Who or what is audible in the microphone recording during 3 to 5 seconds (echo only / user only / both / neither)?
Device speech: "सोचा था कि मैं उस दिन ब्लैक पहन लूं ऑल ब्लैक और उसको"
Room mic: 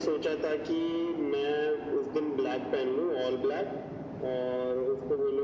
echo only